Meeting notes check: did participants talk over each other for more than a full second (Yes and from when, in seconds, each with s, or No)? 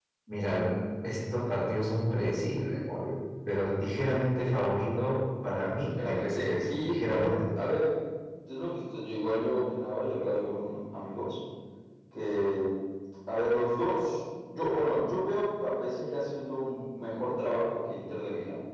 Yes, from 6.0 s